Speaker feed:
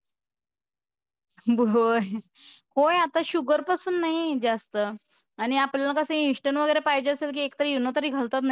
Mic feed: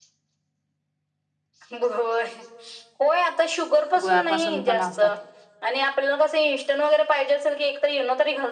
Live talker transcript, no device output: गुळापासून पण असतात.

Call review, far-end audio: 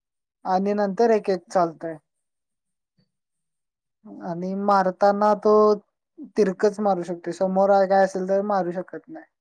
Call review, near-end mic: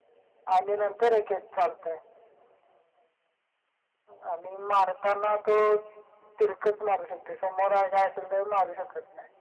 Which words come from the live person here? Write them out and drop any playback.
none

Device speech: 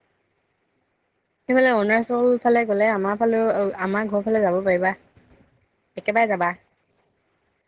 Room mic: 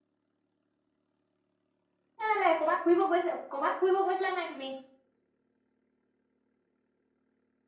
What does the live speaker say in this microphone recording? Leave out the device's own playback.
কেলে ক'বাত ফুৰিব গৈছে, ক'বাত ফুইব গৈছিলা নাই তুমি?

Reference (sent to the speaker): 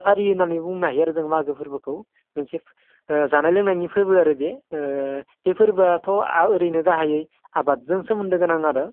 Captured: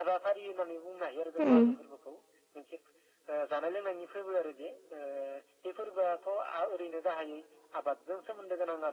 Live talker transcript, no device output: उम

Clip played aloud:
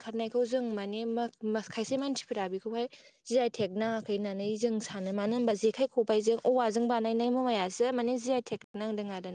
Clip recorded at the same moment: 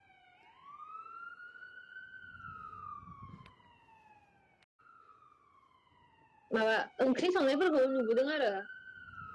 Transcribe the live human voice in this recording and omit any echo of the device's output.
माबा ओंख्रि संनायफोरखौ नुबोदों आरो

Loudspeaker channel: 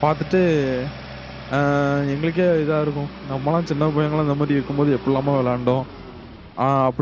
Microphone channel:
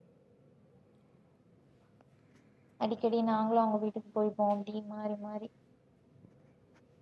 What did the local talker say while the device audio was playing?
அடிக்கடி நாங்களும் அவங்க வீட்டுக்கு போயப்போம் அப்படி மாறி மாறி

